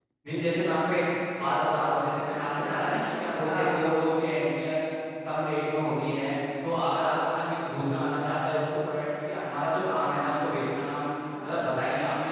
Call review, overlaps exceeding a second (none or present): present